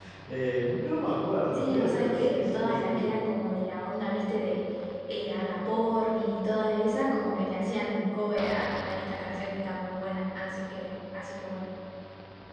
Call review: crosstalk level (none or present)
present